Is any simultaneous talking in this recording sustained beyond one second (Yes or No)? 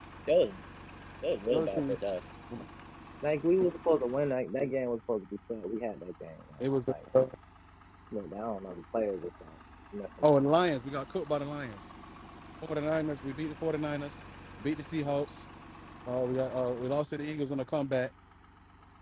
No